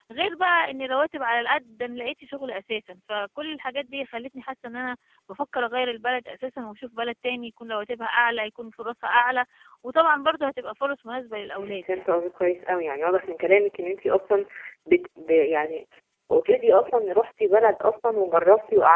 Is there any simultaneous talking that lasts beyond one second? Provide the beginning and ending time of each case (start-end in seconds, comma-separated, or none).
none